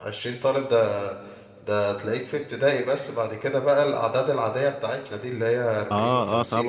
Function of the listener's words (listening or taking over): taking over